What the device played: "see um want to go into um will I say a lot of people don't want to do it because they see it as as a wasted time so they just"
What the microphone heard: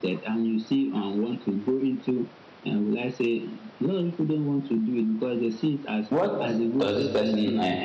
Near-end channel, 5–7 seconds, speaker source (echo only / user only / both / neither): both